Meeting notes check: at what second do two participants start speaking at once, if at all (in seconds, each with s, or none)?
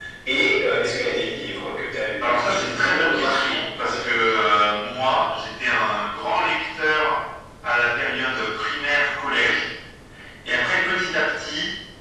2.2 s